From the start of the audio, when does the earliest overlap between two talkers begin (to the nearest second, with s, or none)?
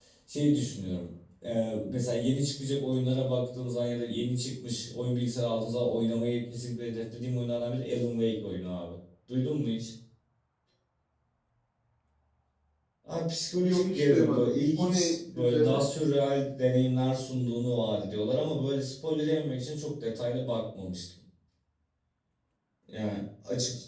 14 s